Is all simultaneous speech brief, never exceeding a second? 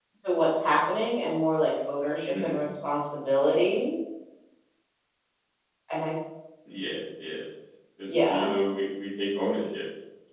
Yes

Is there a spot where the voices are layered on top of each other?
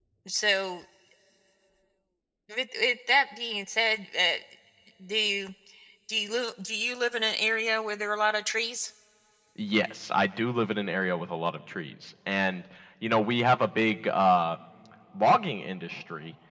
No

